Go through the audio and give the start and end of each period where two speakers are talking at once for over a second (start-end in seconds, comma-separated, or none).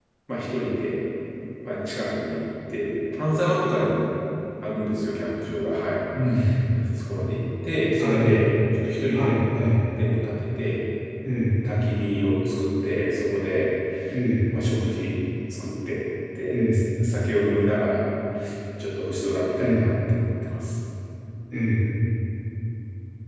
none